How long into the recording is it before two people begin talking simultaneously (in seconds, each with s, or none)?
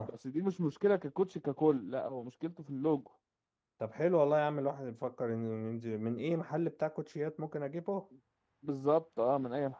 none